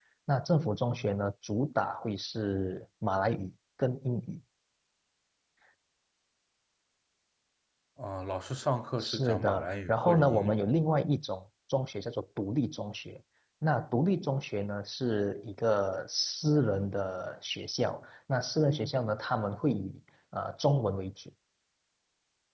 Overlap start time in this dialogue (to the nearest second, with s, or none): 9 s